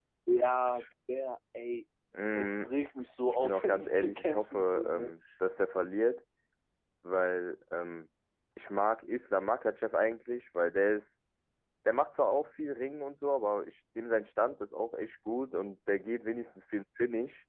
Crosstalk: present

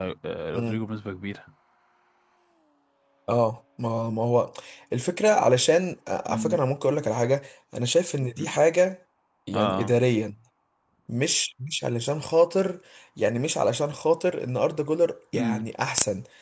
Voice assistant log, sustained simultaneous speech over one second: none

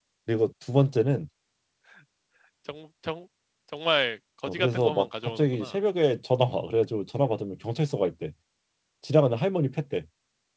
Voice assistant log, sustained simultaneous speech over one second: present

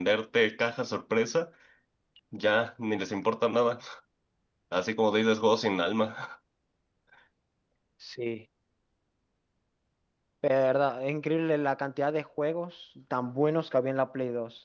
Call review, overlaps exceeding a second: none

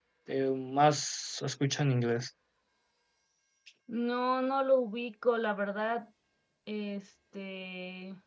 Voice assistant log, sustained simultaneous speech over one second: none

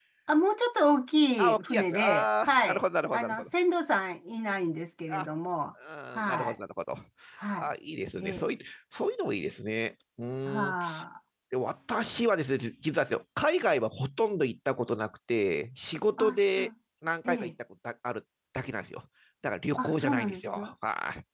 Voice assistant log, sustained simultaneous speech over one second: present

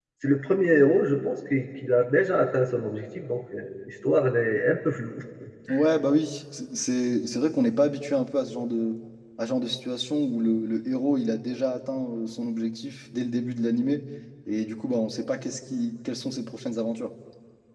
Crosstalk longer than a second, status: none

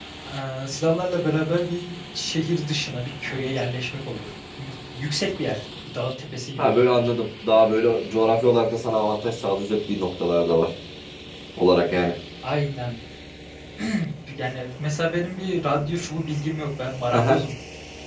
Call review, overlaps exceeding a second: none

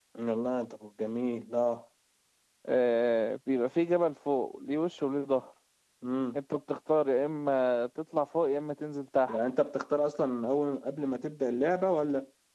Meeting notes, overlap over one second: none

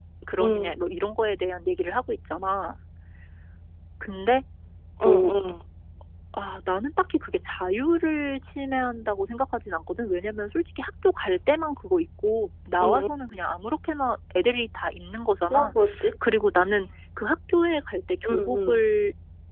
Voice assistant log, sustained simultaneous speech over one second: none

